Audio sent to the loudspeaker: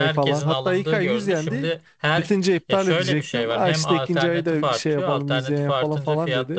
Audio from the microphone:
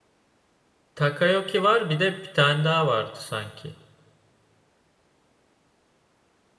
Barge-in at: 0.9 s

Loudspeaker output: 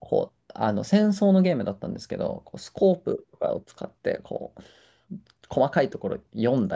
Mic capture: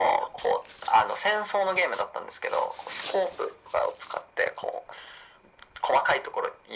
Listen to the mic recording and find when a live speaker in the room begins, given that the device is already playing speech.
none

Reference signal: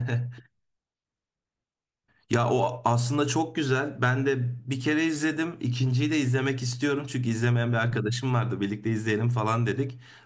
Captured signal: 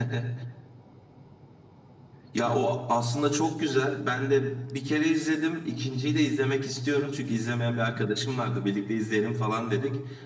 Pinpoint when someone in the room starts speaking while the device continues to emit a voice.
none

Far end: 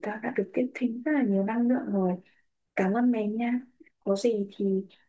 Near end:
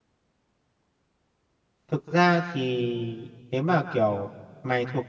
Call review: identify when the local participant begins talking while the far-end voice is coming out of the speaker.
1.9 s

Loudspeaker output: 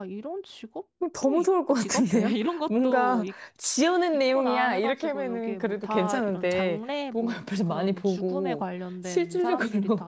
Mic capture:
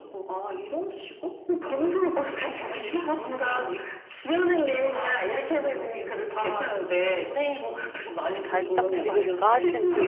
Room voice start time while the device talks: 8.4 s

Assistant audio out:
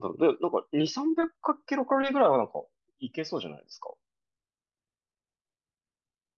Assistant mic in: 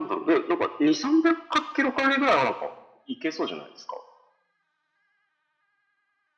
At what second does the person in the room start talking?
none

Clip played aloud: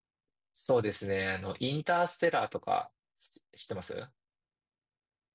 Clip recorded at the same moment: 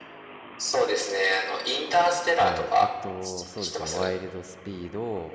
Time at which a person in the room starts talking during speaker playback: 2.3 s

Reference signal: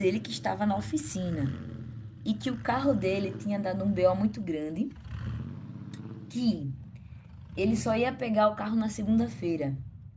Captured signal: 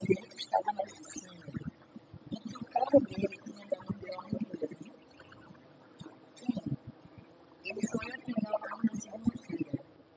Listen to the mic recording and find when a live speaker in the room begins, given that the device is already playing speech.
none

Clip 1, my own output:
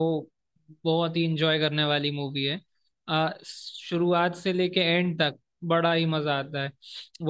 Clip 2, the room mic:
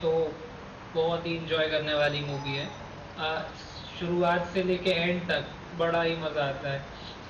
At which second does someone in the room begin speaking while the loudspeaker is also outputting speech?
none

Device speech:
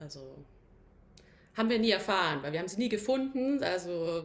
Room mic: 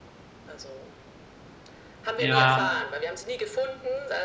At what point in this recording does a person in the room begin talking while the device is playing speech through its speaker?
2.2 s

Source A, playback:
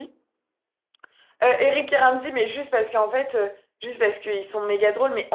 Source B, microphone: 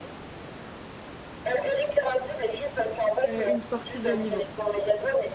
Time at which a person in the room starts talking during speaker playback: 3.3 s

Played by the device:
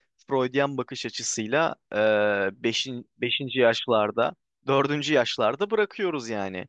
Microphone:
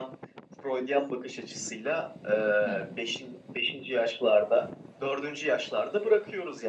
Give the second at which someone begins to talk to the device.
2.6 s

